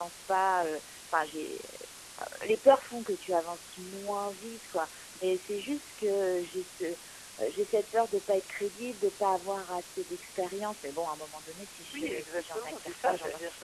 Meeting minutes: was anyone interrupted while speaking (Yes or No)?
Yes